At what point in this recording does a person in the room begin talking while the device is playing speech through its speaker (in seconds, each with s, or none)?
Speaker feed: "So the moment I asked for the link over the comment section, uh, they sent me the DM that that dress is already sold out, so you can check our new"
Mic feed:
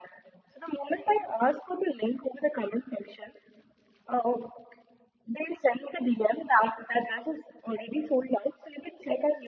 none